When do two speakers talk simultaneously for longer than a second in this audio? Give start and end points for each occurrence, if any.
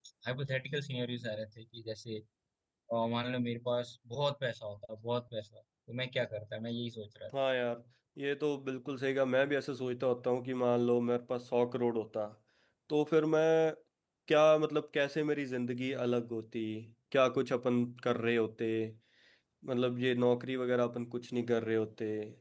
none

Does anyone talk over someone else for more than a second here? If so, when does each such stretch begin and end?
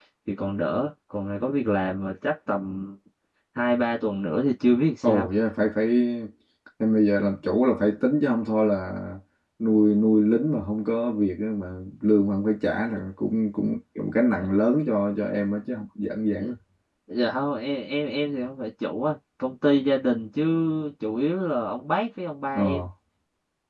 none

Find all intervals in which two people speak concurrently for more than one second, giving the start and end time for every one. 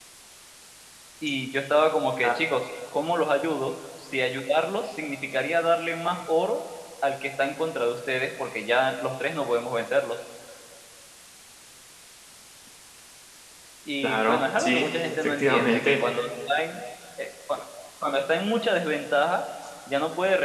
14.0-16.0

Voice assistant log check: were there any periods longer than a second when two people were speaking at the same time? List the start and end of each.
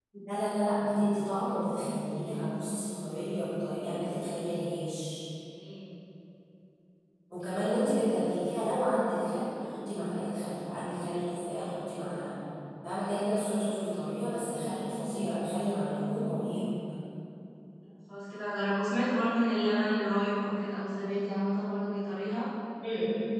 none

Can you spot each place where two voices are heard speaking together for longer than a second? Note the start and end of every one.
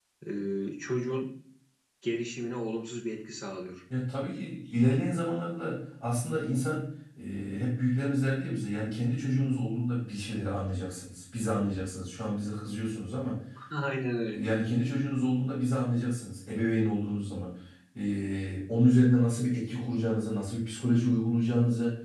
none

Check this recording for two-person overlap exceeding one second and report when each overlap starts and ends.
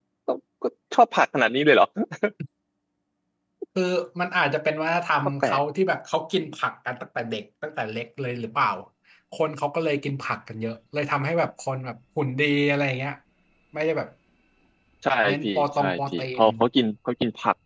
15.2-16.4

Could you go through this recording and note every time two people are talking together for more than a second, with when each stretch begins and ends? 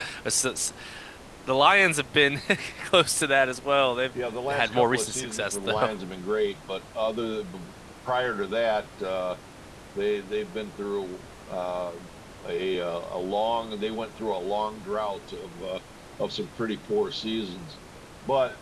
4.5-5.9

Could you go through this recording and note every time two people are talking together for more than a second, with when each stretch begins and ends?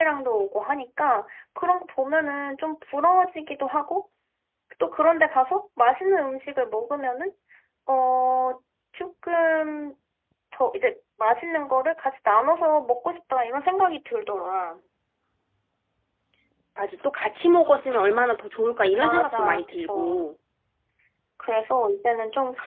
19.0-20.2

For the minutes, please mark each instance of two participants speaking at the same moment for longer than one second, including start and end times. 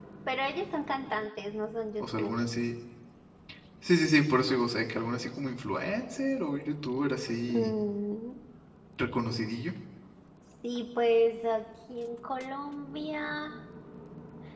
none

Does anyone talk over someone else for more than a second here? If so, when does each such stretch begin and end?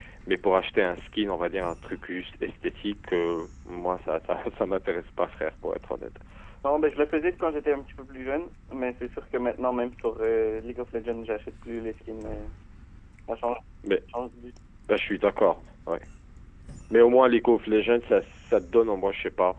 none

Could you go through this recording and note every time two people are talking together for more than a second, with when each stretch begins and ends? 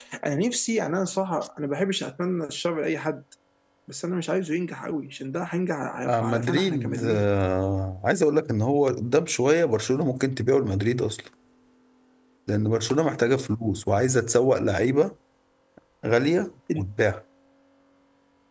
6.0-7.3

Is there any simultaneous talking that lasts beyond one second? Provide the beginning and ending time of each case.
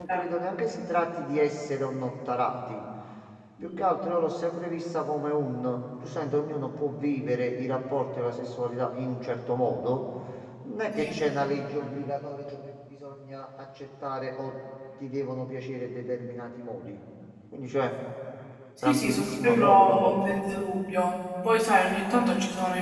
18.9-20.4

